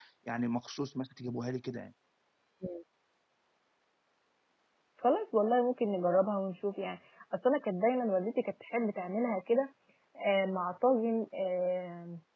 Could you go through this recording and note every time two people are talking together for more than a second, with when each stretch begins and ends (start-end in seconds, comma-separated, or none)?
none